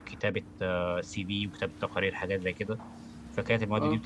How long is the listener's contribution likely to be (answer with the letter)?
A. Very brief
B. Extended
A